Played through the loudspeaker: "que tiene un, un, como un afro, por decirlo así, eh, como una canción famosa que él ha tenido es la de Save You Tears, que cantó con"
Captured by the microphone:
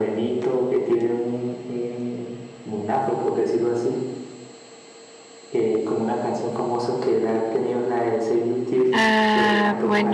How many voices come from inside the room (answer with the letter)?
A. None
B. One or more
B